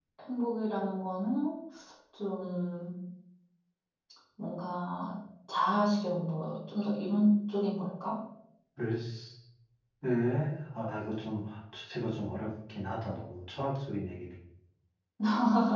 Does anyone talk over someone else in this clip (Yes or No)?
No